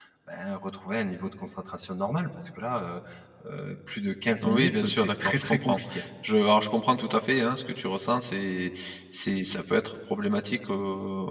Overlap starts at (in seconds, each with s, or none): 4.4 s